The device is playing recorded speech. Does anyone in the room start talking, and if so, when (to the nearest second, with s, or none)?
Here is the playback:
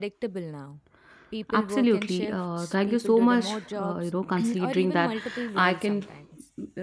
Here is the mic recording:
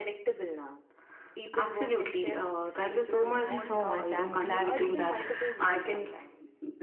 3 s